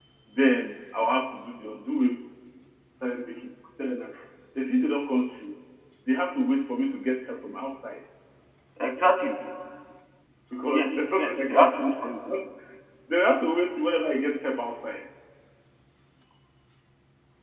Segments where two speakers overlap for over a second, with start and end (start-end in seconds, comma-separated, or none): 10.7-12.1